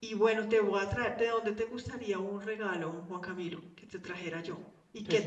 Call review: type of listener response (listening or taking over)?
taking over